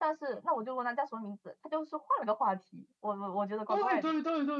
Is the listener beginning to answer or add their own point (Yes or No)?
Yes